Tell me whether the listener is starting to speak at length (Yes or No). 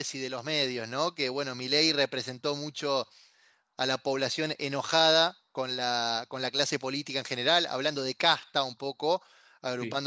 No